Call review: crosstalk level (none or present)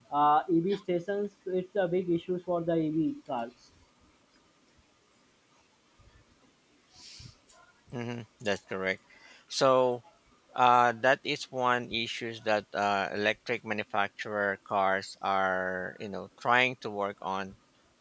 none